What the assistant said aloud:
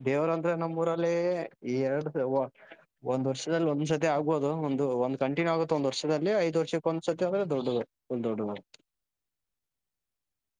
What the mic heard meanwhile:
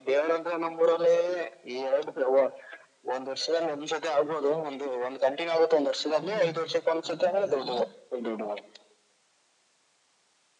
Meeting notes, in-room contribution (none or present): present